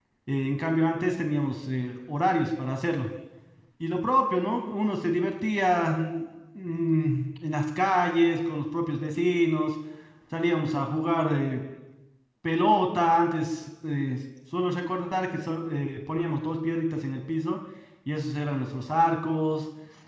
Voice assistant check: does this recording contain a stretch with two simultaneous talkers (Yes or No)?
No